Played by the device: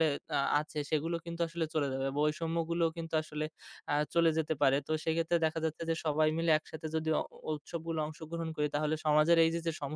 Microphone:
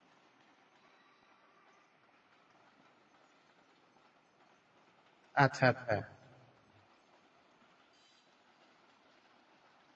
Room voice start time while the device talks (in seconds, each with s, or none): 5.4 s